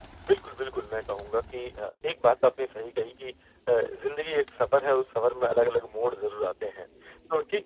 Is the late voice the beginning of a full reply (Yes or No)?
No